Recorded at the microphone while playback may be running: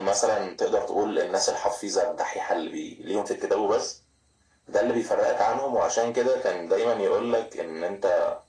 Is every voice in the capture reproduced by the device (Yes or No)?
Yes